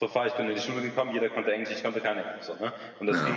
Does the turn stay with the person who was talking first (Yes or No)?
No